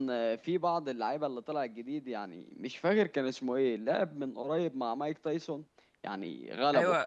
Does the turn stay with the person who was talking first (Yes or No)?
No